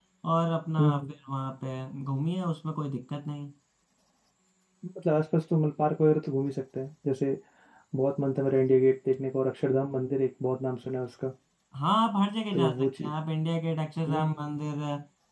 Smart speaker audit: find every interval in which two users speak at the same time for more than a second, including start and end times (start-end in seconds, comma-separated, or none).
none